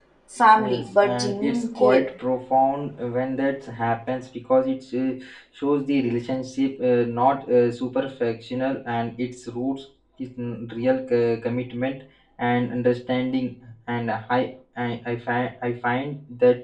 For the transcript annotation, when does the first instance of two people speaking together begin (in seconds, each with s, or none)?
0.6 s